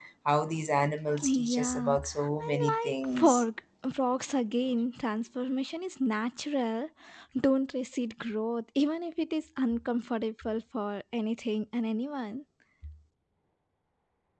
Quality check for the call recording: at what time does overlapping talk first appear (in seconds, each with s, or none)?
1.2 s